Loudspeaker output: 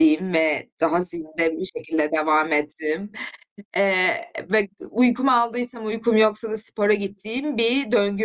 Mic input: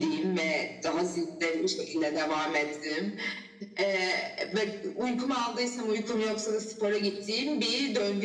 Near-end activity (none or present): none